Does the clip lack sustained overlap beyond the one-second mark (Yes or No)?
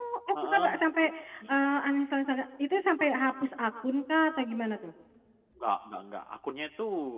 Yes